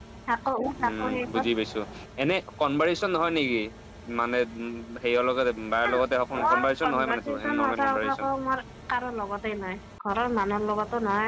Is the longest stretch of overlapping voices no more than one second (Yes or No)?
No